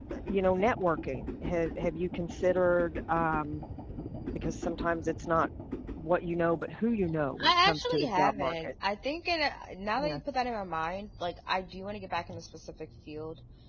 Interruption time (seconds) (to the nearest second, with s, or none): 7 s